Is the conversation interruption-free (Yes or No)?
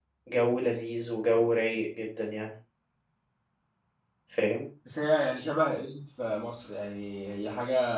Yes